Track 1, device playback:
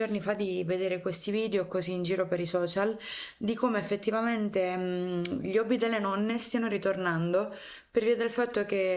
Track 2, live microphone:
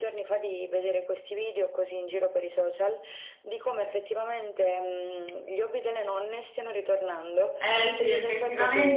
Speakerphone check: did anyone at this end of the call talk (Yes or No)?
Yes